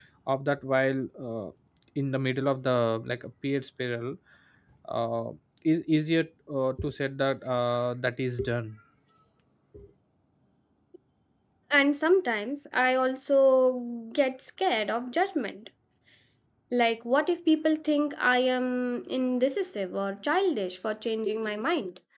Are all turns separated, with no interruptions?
Yes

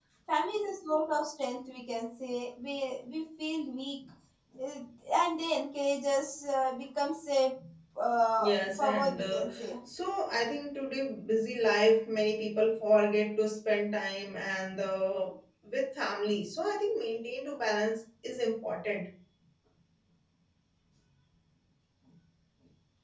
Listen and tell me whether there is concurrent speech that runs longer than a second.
Yes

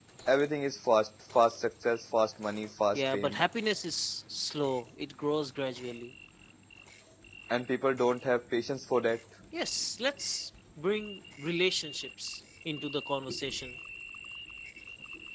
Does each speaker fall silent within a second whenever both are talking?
Yes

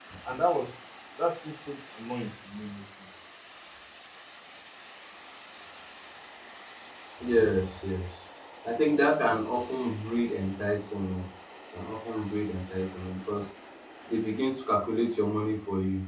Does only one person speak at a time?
Yes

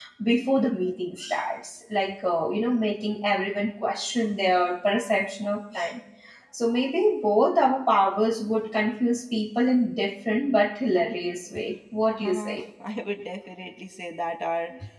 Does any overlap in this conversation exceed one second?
No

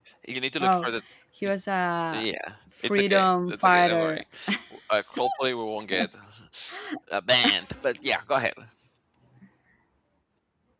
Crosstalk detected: Yes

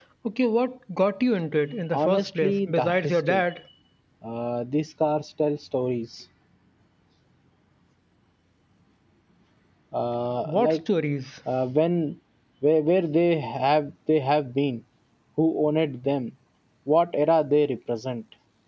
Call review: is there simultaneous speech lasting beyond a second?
Yes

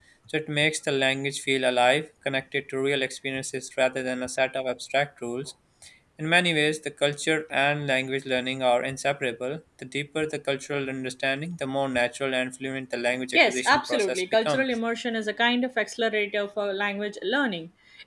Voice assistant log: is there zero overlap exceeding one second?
No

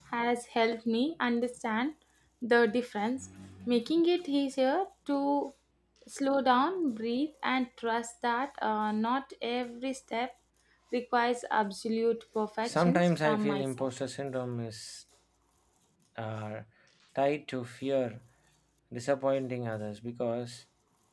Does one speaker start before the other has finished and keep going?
Yes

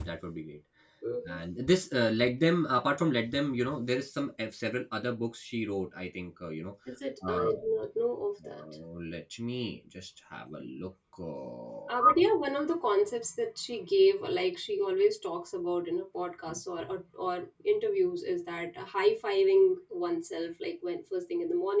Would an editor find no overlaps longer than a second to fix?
Yes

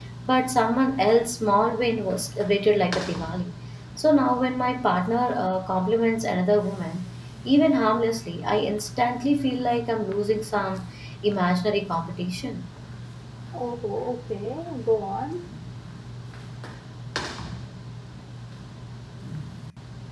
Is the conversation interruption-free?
Yes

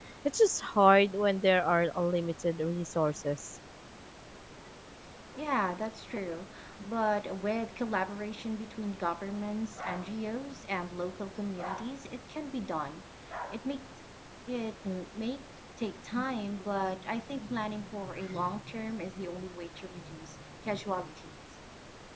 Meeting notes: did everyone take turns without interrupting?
Yes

